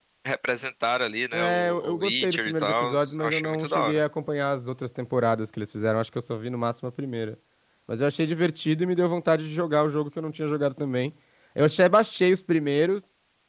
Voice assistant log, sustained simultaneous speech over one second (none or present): present